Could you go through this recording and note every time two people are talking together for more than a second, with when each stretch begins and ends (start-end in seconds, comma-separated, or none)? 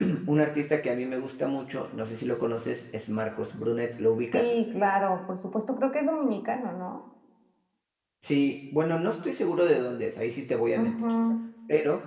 none